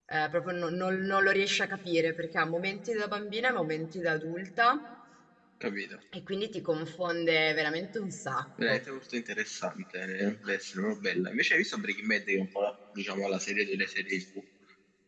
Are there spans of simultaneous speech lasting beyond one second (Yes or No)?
No